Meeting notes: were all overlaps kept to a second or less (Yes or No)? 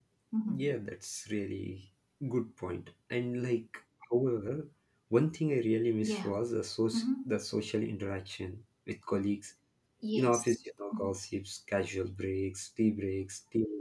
Yes